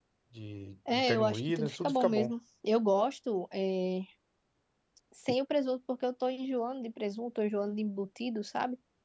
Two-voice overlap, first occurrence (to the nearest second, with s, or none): 1 s